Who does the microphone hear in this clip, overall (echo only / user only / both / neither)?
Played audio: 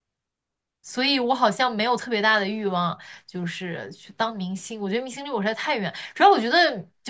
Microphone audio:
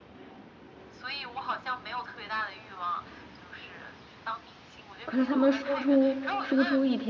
both